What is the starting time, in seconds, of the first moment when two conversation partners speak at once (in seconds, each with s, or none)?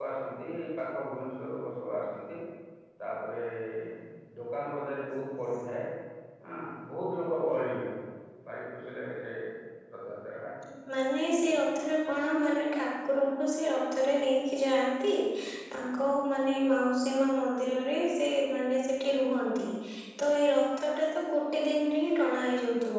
none